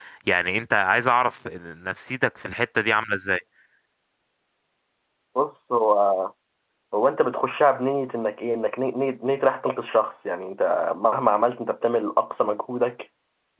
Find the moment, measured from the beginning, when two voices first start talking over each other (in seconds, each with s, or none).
none